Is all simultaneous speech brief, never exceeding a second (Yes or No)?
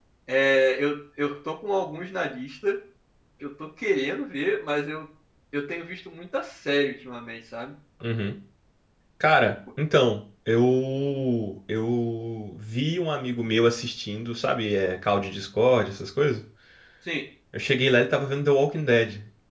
Yes